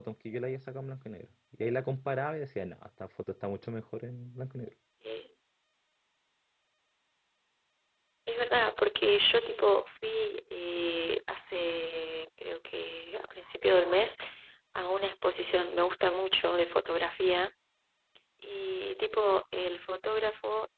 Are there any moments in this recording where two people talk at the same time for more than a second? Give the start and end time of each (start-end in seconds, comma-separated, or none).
none